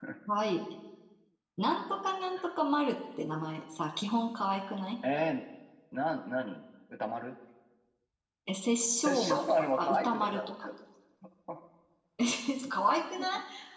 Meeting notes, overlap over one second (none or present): present